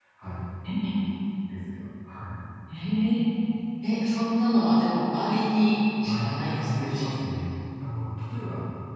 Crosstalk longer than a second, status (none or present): present